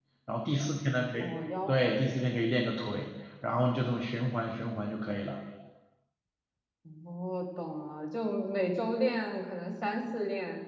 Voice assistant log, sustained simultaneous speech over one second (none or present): none